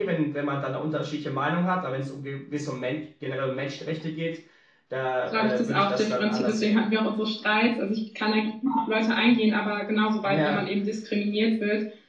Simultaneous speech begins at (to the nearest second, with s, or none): 5 s